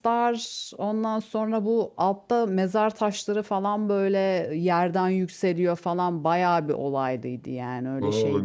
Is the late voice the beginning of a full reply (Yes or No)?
Yes